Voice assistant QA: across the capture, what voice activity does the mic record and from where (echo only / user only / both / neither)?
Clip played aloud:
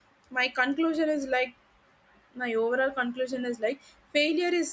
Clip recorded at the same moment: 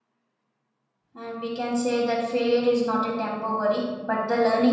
user only